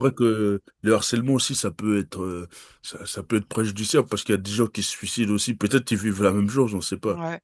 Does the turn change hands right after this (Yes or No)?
Yes